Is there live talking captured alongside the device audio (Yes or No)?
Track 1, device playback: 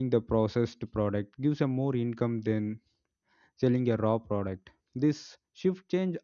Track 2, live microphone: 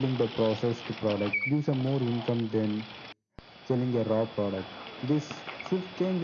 No